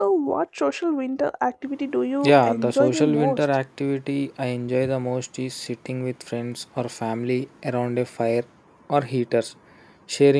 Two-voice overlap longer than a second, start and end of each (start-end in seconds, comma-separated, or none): 2.2-3.5